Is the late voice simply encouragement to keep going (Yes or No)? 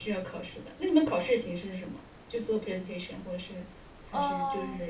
No